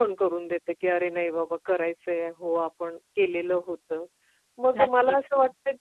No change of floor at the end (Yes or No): Yes